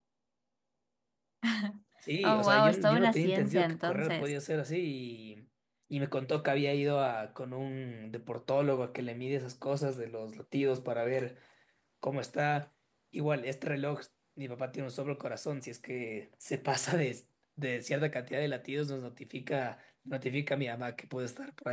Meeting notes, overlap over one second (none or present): present